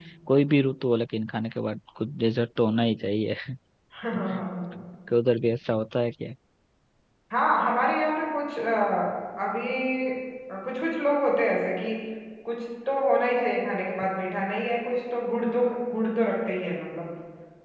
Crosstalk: none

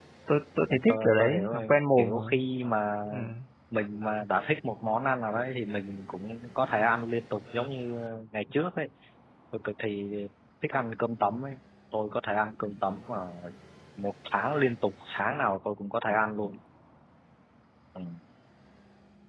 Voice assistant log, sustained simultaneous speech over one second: present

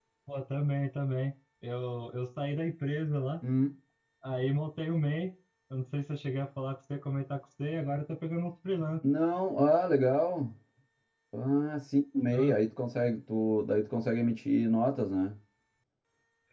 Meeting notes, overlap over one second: none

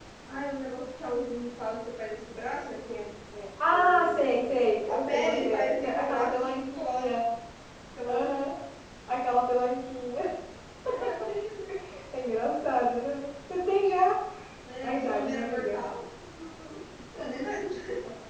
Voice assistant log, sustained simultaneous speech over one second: present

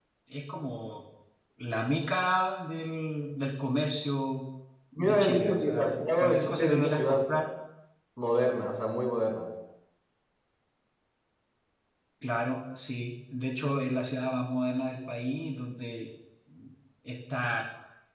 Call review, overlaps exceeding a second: present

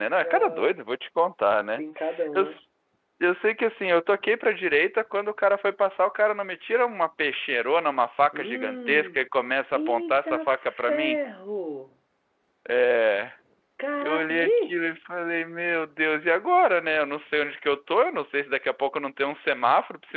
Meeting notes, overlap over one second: present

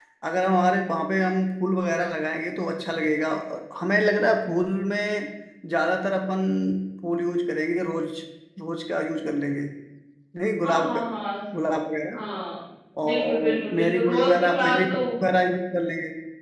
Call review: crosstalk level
present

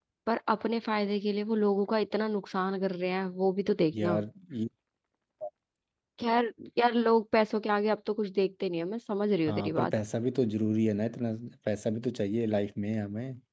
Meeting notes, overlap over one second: none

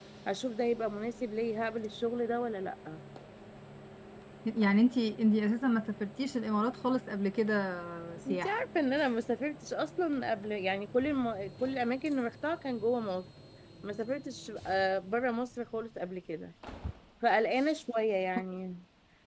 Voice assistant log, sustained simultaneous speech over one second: none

